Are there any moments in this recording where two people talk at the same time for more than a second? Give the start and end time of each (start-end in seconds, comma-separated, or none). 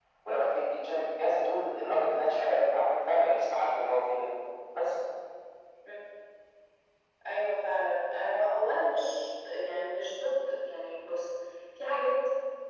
none